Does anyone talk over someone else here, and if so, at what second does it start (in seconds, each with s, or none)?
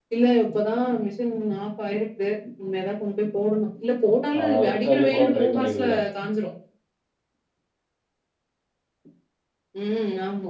4.3 s